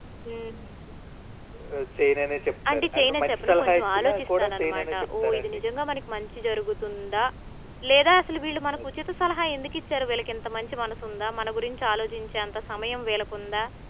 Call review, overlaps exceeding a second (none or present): present